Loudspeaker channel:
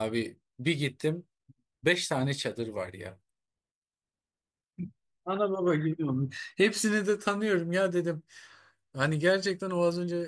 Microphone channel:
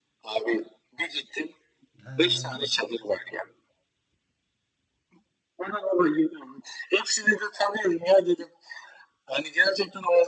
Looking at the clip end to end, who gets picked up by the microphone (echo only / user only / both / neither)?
both